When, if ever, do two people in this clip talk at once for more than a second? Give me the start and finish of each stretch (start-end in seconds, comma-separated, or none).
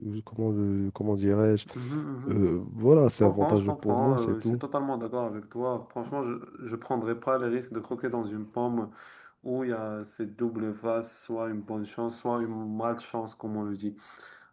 3.2-4.6